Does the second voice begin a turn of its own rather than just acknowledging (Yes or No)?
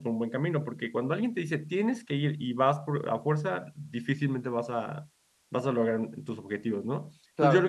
No